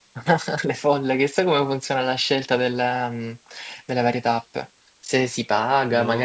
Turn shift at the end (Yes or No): No